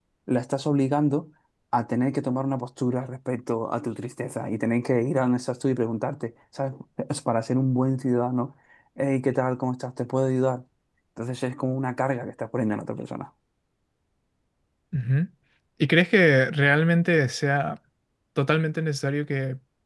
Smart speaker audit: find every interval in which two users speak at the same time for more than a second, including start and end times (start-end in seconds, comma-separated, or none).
none